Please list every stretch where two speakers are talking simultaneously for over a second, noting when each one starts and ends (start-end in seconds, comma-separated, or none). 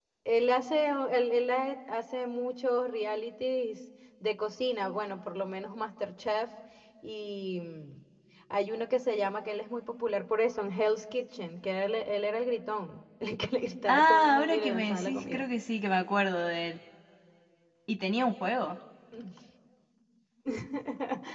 13.9-15.4